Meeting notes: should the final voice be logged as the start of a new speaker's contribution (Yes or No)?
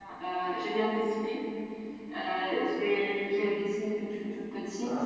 No